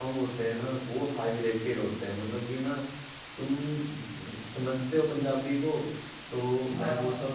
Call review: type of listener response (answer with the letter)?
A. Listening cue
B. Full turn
A